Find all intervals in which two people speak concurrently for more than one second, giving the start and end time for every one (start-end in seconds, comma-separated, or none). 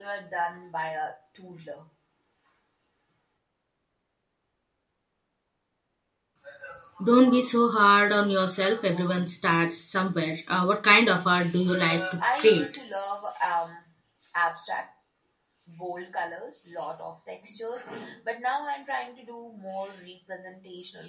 none